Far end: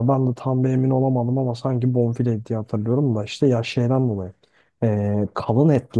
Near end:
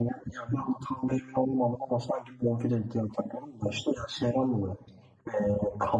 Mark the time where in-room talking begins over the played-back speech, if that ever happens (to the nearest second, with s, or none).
none